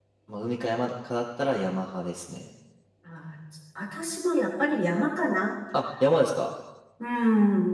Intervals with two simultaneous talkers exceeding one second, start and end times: none

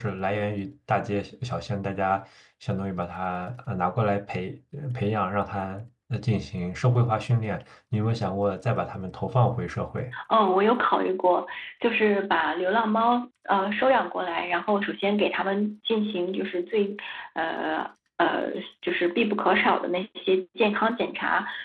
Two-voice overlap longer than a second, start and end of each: none

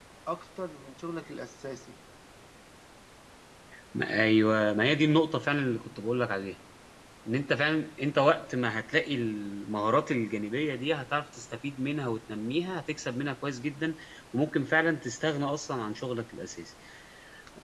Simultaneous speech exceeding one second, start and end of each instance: none

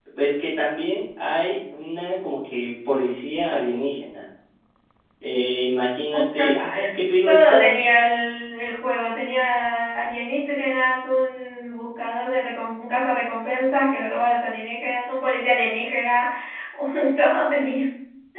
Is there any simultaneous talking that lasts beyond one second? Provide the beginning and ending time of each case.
none

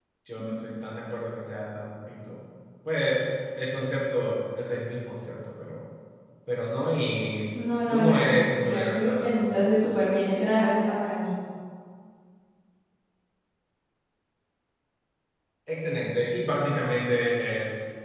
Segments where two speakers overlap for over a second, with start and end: 7.9-10.1

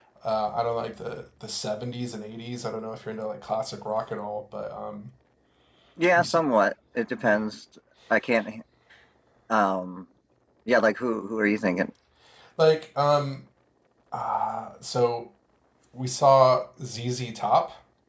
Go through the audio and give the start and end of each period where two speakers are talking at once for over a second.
none

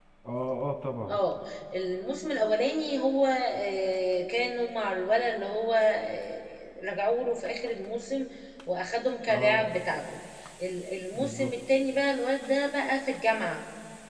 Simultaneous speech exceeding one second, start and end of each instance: none

